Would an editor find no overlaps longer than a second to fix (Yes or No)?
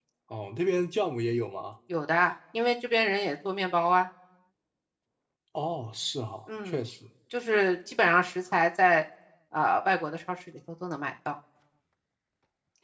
Yes